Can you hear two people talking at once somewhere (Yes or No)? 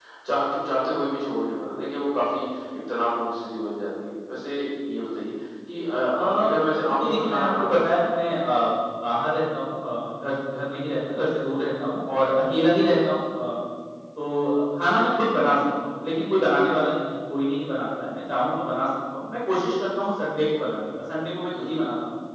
Yes